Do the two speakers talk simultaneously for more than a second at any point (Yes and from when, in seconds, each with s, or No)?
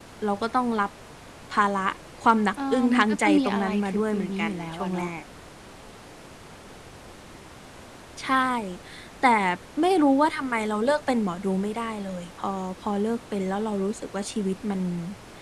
Yes, from 2.7 s